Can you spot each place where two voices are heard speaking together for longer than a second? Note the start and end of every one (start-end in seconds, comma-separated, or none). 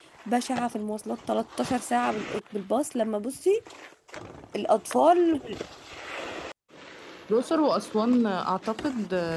none